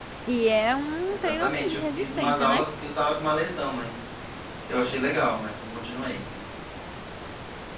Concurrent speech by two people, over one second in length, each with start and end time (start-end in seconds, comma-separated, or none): 1.1-2.6